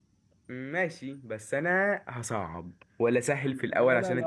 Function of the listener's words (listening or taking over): taking over